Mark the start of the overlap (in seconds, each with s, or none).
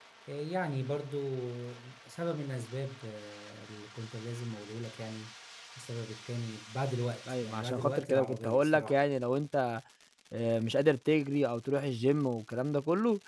7.3 s